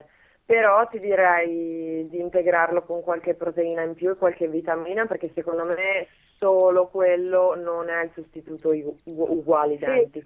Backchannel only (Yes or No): No